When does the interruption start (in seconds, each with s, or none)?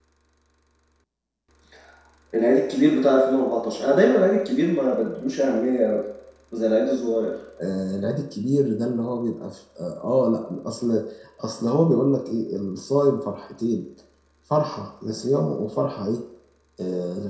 none